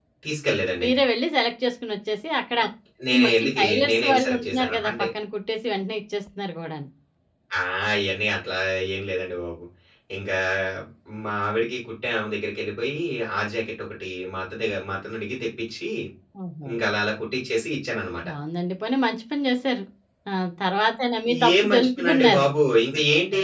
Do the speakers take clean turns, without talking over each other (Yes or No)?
No